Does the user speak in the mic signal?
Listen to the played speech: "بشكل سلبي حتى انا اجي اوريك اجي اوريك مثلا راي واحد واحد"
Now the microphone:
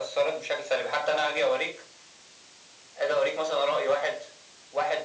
No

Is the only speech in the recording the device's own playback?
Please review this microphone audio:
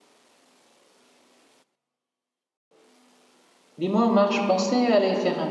No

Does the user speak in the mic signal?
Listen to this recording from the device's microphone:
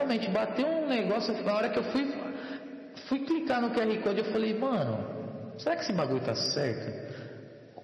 No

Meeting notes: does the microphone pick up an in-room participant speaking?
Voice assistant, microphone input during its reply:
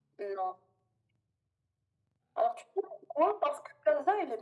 No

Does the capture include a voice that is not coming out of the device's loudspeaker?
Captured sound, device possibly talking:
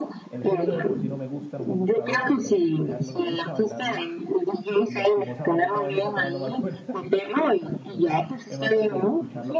Yes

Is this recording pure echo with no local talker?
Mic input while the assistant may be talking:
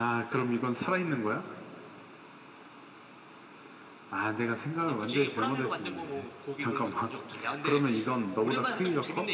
Yes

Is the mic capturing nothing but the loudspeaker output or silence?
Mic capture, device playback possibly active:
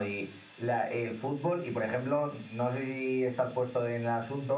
Yes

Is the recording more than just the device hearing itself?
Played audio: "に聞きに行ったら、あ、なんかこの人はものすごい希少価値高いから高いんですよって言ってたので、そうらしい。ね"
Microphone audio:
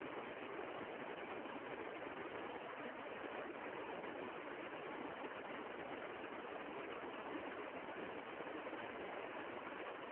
No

